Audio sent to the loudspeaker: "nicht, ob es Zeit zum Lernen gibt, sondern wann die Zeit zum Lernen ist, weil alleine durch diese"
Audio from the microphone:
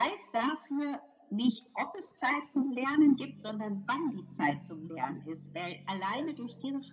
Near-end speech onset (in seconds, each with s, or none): none